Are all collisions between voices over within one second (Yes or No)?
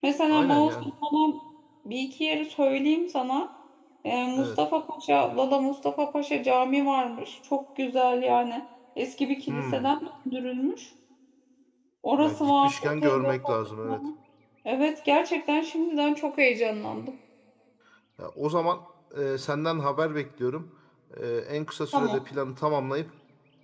No